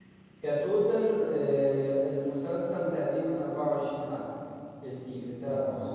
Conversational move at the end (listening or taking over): taking over